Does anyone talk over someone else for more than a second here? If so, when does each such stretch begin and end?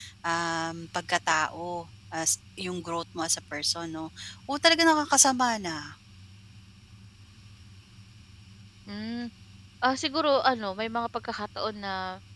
none

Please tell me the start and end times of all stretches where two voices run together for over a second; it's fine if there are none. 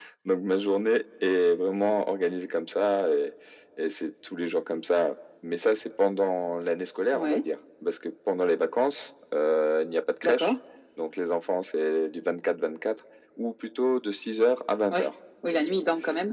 none

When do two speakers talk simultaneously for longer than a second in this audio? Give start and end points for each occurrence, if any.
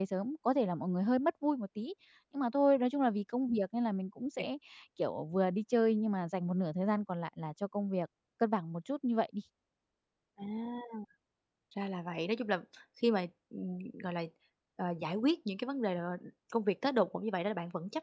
none

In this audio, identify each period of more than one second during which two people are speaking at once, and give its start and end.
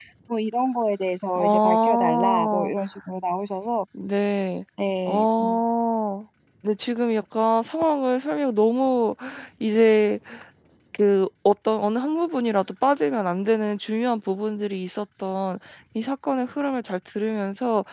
1.4-2.7

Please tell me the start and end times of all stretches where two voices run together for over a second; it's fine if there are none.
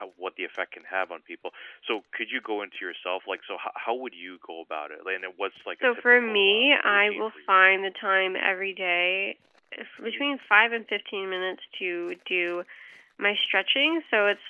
5.8-7.3

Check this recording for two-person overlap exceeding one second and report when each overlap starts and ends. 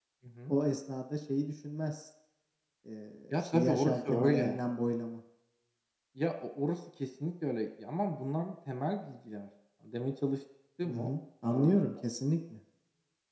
3.3-4.6

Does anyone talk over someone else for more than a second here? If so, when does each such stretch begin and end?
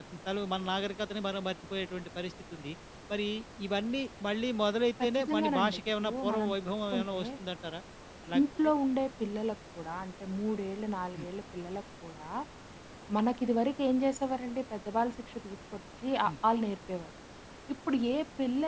5.0-7.2

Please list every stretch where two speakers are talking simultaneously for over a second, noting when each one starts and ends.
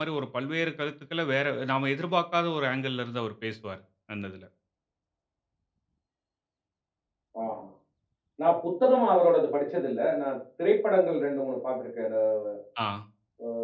none

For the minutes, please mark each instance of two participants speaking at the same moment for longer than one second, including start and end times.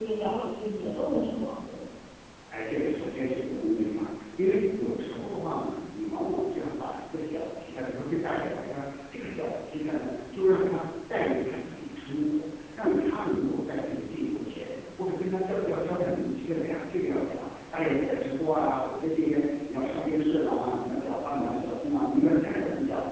none

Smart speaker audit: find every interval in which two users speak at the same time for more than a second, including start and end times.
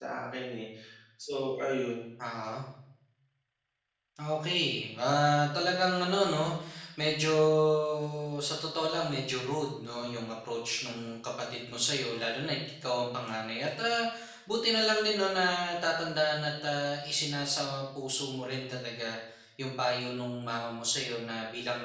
none

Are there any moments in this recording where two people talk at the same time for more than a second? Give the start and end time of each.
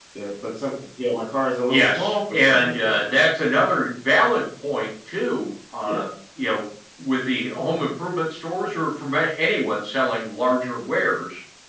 1.7-3.1

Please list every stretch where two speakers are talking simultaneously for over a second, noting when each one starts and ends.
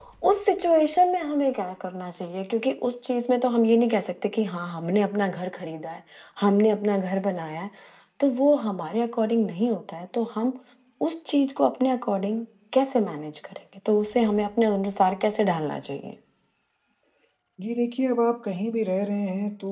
none

